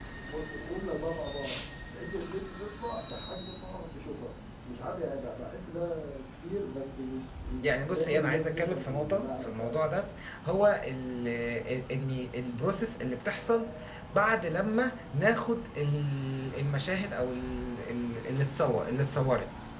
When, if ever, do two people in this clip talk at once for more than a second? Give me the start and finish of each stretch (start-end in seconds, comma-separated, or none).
7.6-10.0